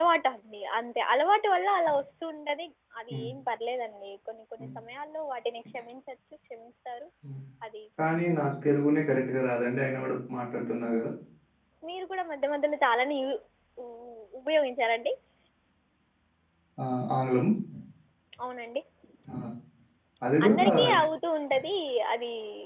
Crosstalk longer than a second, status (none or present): none